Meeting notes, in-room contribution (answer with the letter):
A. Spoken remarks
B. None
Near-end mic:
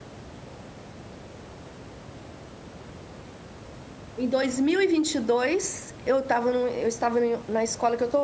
A